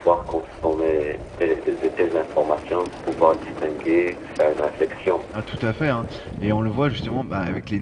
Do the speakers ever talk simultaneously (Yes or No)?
No